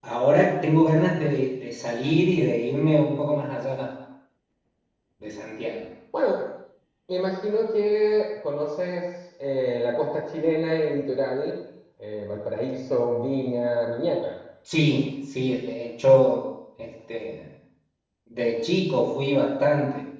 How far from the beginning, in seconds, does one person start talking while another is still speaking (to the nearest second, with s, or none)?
none